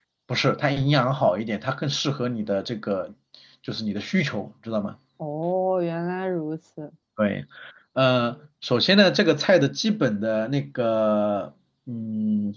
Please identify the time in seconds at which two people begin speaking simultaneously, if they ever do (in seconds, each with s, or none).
none